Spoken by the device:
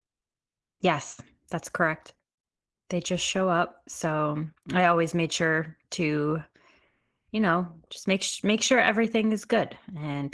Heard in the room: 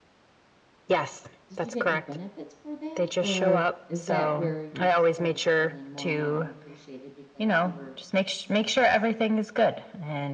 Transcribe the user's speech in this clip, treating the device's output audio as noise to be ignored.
Did you get any benefits for that, or is that where you started feeling more and more unappreciated because you were

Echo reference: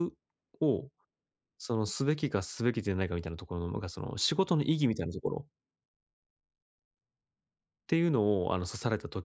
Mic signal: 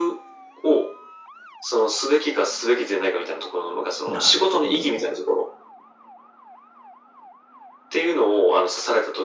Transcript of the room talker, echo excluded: なるほど。

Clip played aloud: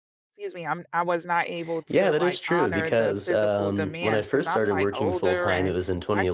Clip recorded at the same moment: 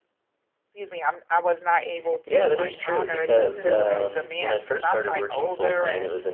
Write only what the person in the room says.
Same, and and me too. Like,

